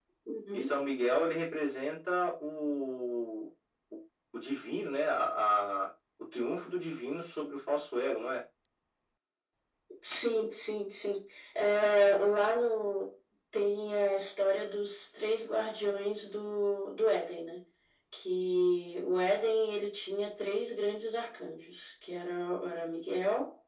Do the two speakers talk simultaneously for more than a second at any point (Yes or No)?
No